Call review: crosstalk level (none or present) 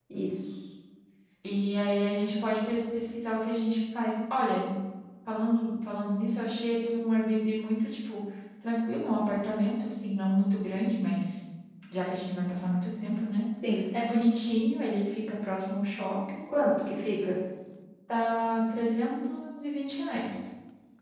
none